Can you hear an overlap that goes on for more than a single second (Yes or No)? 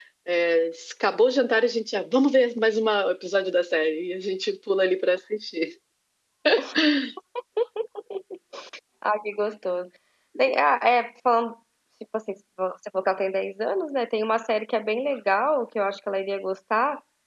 No